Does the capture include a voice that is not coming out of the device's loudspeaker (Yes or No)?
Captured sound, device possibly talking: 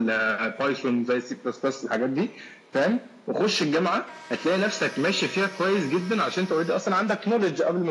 No